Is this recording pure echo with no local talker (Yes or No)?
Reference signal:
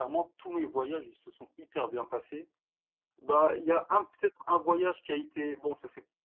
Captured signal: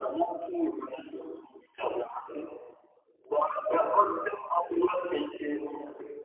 Yes